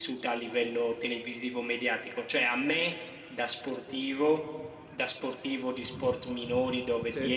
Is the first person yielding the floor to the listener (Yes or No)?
No